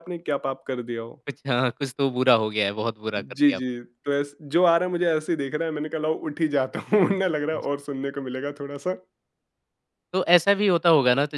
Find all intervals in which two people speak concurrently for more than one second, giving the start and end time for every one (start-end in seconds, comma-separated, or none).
none